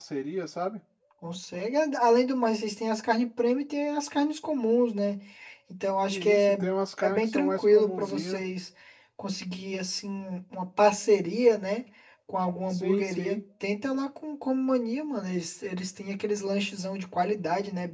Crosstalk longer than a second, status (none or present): present